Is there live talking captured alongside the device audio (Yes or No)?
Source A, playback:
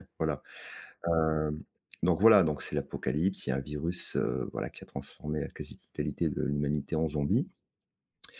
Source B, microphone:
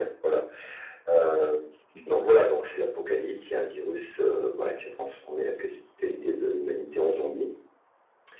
Yes